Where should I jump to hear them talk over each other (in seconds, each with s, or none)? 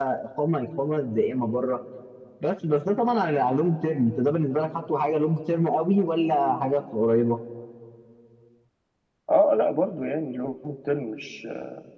none